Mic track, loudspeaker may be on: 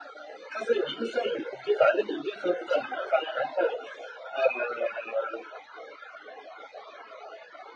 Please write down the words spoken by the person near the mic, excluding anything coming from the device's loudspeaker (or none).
none